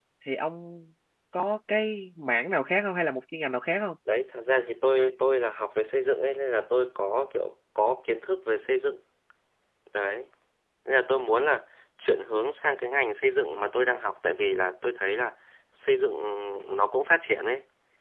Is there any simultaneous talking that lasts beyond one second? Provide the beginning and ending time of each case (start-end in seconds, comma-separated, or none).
none